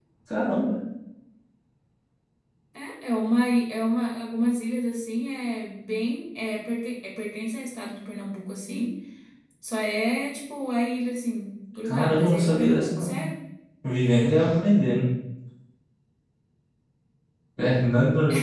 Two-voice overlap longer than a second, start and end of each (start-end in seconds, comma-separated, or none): 11.8-13.1